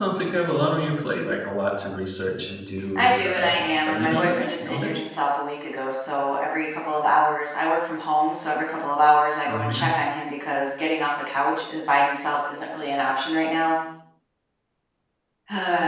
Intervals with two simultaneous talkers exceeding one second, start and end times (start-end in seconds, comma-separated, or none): 3.0-4.9